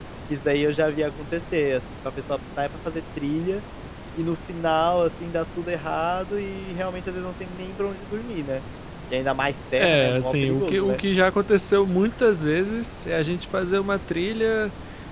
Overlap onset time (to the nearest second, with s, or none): 10 s